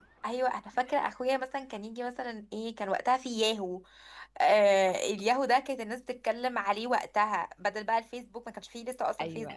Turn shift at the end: Yes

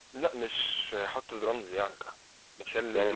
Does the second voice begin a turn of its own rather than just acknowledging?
Yes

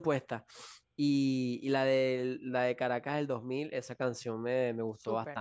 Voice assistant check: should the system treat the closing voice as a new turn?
Yes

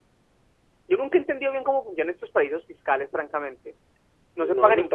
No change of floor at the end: No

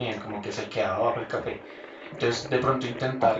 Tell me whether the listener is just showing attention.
Yes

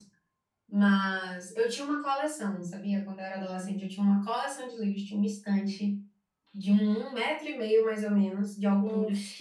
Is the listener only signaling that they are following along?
Yes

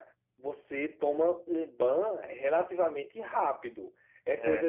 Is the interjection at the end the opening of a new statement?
No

